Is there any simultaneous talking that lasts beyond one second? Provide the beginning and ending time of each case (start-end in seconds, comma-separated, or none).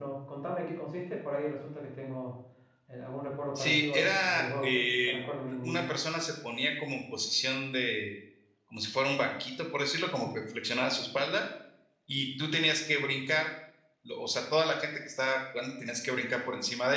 3.6-5.2